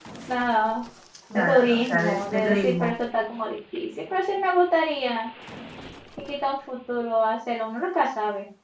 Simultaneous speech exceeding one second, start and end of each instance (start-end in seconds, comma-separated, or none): 1.3-2.9